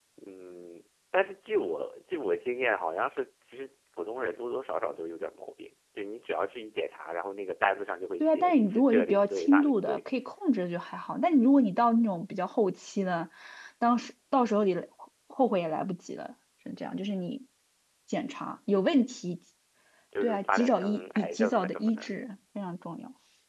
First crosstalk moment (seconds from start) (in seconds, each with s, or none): 8.2 s